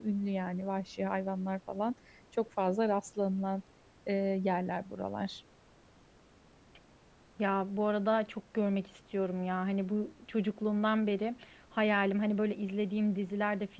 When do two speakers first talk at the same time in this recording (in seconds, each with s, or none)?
none